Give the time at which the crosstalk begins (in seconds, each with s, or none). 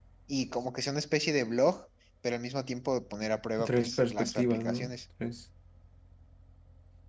3.6 s